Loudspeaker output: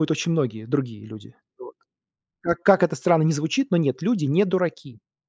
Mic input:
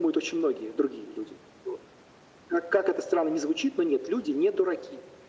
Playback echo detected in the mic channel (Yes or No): Yes